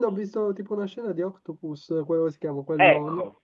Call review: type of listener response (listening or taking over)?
taking over